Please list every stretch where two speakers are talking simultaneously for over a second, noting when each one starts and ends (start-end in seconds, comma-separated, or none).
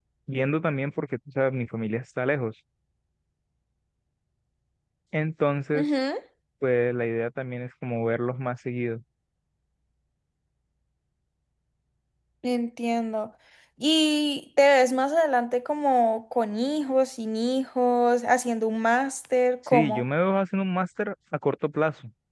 none